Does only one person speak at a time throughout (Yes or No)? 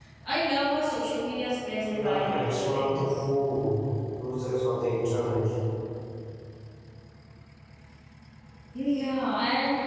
No